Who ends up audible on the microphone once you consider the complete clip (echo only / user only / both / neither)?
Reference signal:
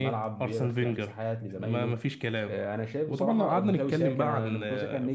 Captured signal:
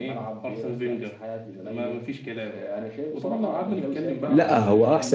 both